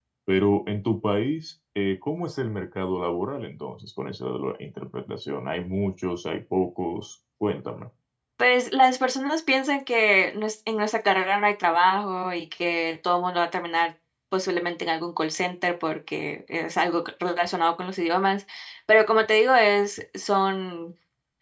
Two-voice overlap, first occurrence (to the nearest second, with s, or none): none